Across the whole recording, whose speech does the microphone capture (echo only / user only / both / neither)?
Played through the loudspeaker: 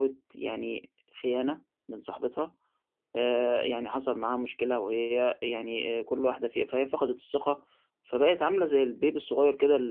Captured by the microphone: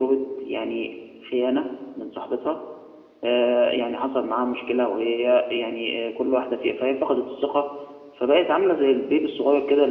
echo only